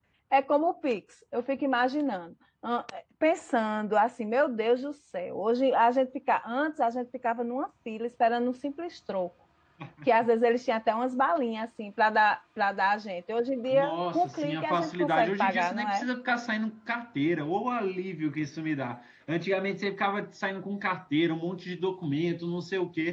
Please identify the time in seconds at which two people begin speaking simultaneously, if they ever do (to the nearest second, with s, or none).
14 s